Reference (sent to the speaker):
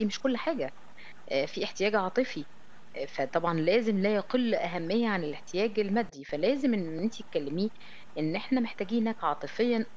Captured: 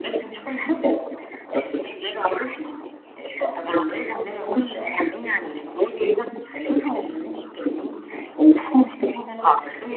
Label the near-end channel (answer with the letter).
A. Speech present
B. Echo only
B